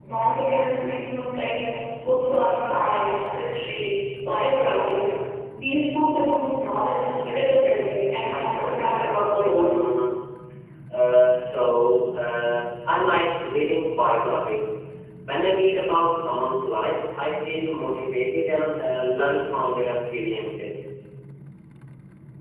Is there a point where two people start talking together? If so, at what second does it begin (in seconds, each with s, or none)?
8.2 s